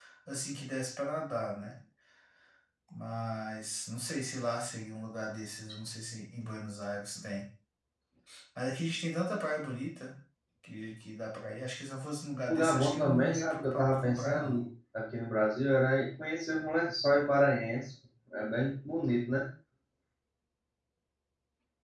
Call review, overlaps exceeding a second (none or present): present